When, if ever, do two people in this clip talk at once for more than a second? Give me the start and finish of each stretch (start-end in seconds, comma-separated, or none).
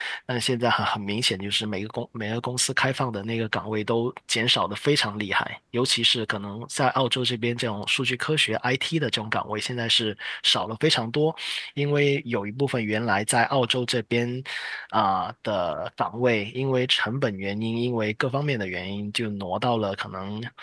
none